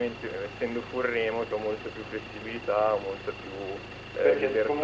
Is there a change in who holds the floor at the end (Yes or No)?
Yes